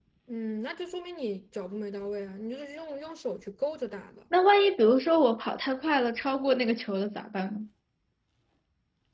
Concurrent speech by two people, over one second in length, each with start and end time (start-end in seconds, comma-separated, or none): none